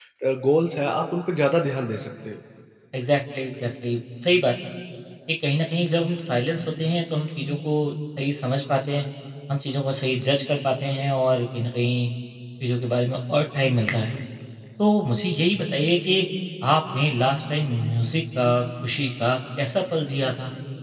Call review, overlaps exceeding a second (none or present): none